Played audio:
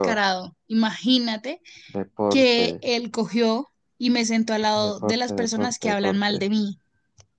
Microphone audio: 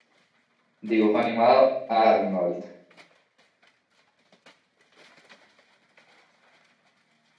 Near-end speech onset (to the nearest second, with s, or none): 1 s